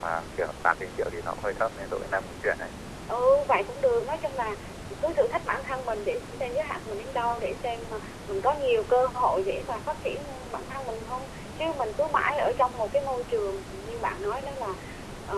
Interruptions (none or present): none